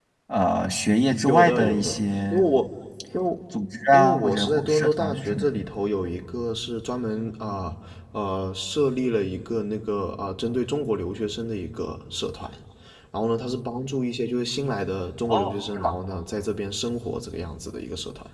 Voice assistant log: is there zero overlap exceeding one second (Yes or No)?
No